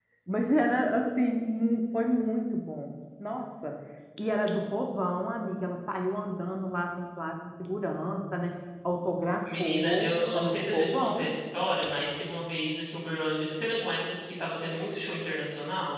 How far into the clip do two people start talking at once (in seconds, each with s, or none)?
9.4 s